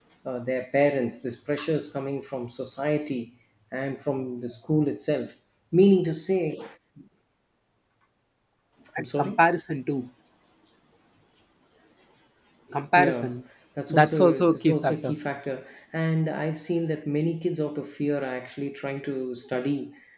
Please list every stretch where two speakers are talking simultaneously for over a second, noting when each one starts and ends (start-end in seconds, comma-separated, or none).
13.9-15.1